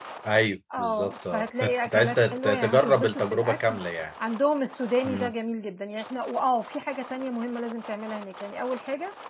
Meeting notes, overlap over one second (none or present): present